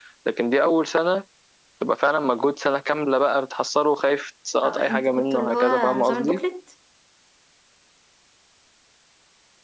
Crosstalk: present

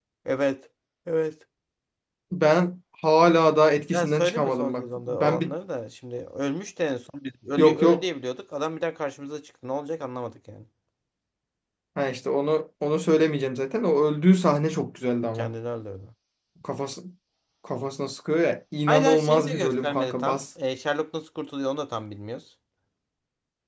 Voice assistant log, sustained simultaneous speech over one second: present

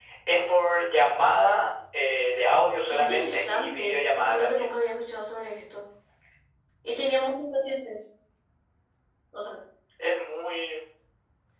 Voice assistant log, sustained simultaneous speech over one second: present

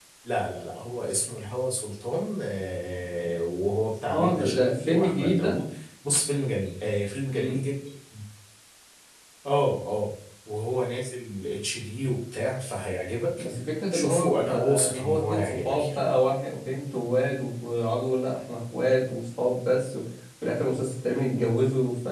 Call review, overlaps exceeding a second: present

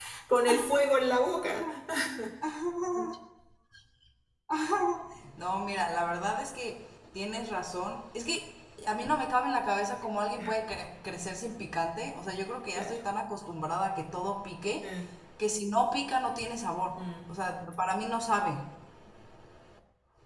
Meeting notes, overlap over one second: none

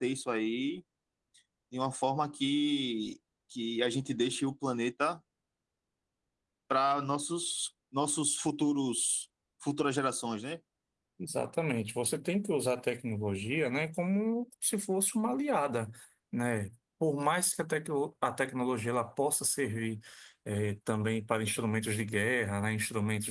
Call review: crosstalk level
none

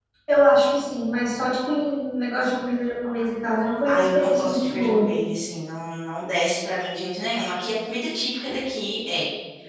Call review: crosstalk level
present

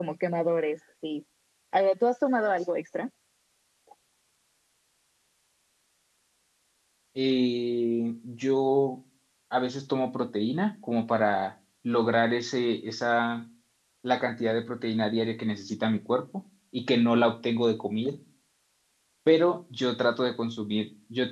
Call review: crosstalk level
none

